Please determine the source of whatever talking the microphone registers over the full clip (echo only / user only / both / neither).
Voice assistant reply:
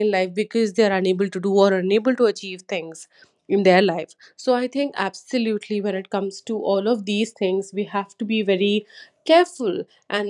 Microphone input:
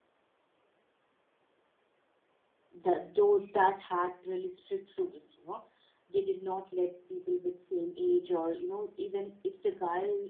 user only